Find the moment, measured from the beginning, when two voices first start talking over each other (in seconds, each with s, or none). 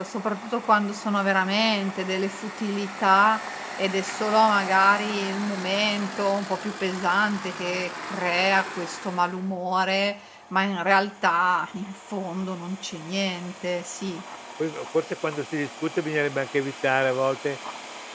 none